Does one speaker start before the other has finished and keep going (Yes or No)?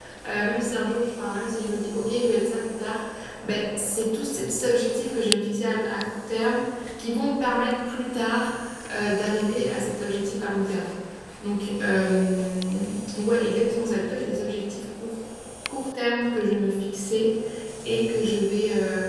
No